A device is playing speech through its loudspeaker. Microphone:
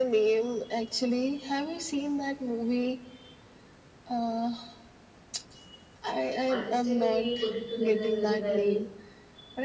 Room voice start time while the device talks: 7 s

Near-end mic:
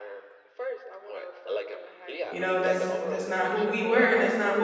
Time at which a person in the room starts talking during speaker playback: 2 s

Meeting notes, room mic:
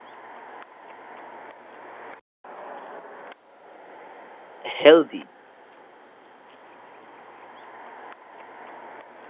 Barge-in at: 5 s

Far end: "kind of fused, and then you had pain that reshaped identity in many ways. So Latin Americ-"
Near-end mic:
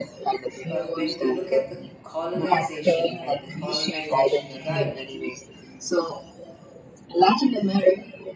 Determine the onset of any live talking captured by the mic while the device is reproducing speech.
1 s

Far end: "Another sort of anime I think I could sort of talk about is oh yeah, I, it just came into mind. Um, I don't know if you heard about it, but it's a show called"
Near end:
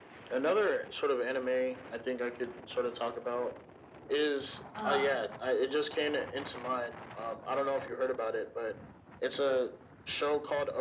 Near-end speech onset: 5 s

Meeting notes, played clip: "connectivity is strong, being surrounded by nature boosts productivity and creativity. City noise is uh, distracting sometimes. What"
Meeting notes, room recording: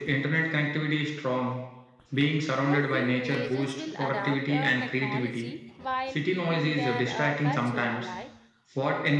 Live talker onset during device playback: 3 s

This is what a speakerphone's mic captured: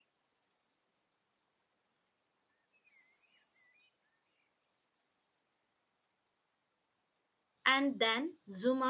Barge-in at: 8 s

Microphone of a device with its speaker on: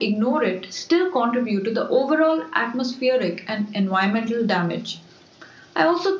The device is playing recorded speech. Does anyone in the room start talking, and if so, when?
none

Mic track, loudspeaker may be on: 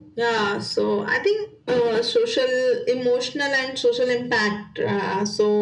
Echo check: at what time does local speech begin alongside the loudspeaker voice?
none

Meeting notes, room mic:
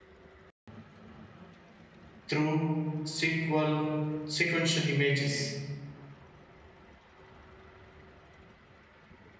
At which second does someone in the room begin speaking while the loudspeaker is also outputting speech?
2 s

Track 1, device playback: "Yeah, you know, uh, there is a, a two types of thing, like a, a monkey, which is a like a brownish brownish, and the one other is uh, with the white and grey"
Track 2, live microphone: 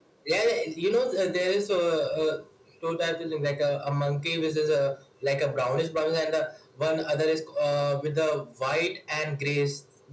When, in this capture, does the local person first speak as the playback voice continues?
none

